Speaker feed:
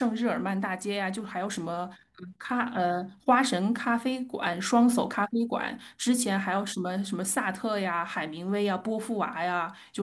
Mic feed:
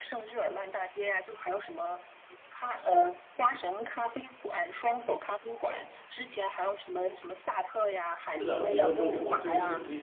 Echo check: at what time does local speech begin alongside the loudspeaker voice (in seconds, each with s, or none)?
8.4 s